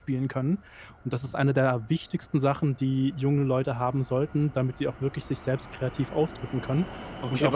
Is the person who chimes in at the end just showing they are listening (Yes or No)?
No